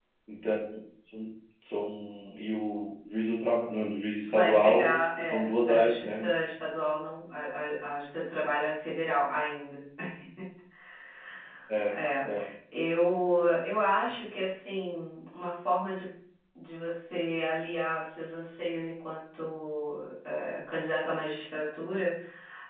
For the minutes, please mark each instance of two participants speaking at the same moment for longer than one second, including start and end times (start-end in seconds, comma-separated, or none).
4.3-6.2